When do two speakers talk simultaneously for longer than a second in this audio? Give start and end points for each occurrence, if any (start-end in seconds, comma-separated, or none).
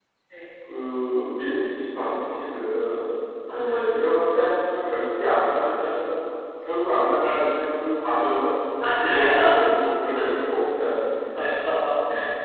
none